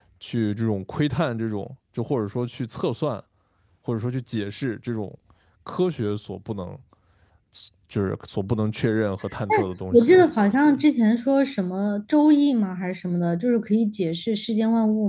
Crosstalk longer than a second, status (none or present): none